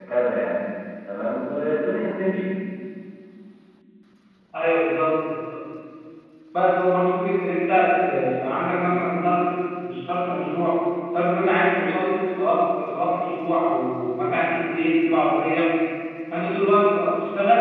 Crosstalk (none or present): none